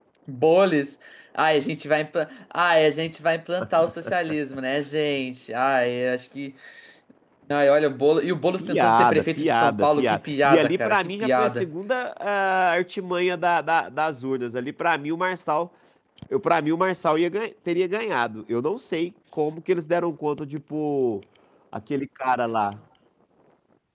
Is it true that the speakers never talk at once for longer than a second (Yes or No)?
No